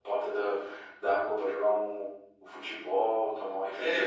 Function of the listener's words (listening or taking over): taking over